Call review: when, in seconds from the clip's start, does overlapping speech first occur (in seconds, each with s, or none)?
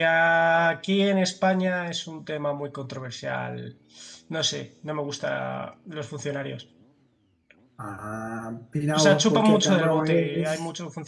8.9 s